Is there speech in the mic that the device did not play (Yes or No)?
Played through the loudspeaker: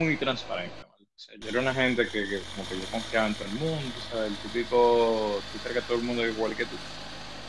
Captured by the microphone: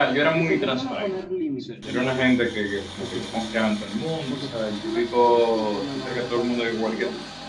Yes